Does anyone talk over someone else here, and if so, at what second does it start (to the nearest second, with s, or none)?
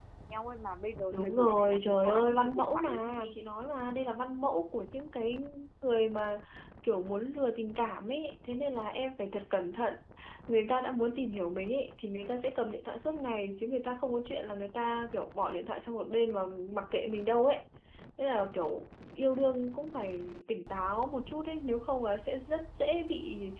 1 s